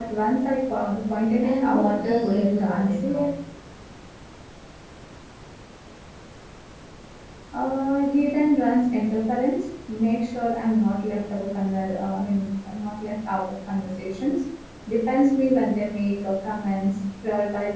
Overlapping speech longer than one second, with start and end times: 1.4-3.3

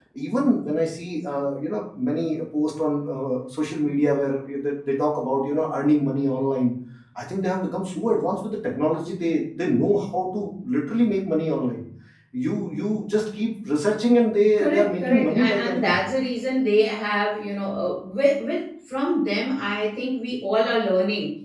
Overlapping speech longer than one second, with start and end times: 14.6-16.0

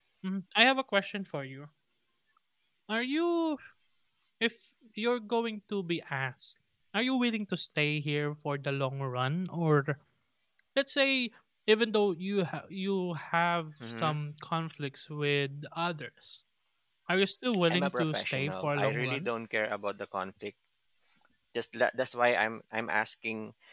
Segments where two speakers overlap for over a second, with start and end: 17.7-19.3

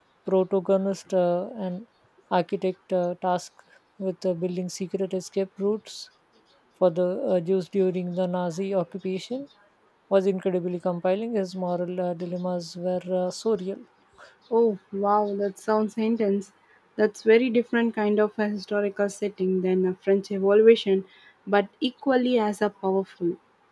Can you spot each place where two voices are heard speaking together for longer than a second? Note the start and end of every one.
none

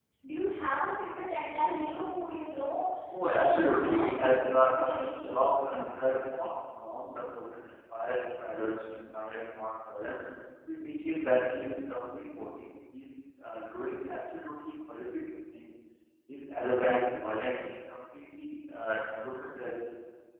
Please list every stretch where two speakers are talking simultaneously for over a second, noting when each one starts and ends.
3.2-4.7

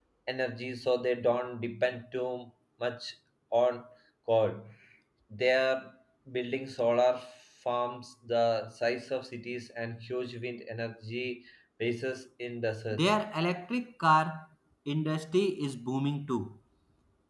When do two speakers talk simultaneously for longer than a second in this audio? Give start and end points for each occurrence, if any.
none

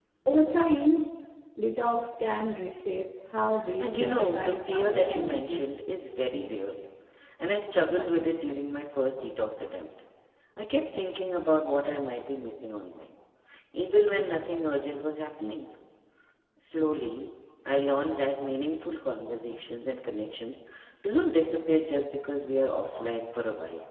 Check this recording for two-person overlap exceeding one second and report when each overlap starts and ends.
3.8-5.6

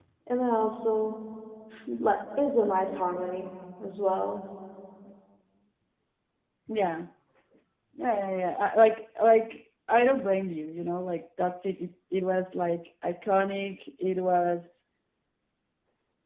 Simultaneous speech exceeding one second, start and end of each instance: none

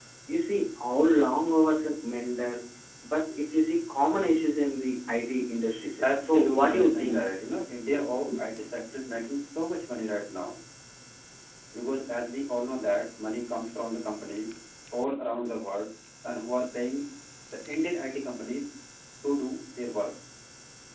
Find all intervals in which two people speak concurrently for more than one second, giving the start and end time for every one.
6.0-7.2

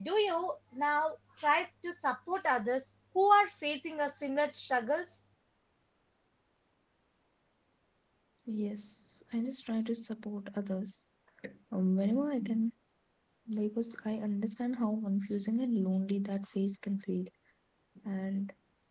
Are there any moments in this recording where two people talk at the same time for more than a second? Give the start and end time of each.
none

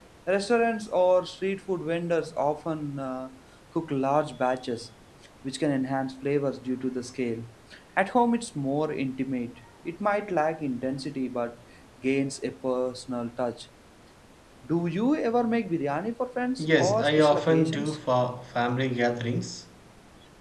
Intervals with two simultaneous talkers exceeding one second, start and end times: 16.6-18.0

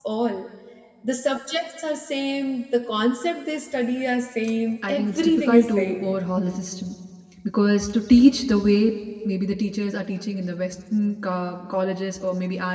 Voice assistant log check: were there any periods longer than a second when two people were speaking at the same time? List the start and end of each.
4.9-6.1

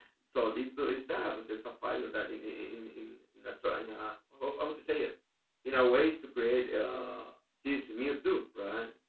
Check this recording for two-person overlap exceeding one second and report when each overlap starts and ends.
none

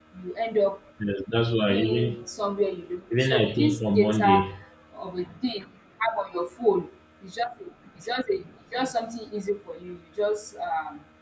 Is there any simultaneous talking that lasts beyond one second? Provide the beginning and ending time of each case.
3.1-4.5

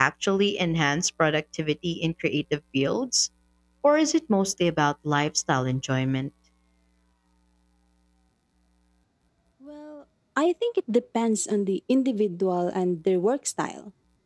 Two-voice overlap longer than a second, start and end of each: none

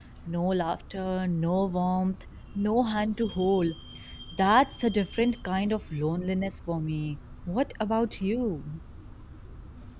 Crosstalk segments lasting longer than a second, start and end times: none

